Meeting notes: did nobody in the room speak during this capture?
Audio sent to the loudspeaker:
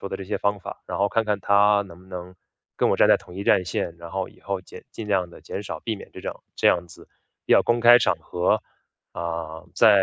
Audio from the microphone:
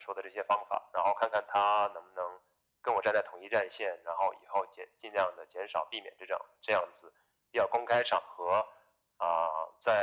Yes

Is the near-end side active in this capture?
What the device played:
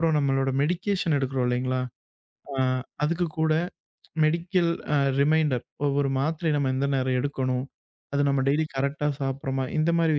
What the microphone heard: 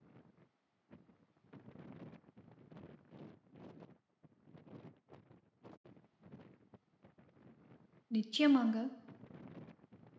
Yes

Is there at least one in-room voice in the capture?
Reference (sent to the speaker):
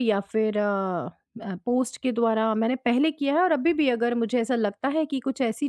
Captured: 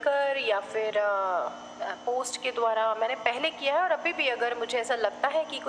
No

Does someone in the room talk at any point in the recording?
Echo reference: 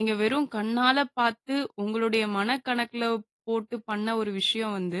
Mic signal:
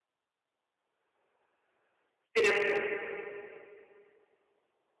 Yes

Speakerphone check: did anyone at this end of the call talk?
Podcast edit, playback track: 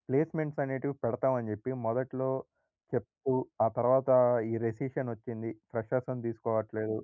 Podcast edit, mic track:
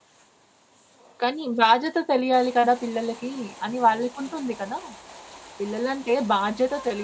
Yes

